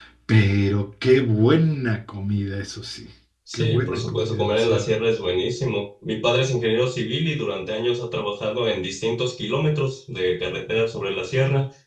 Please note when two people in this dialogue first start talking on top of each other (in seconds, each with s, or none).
3.5 s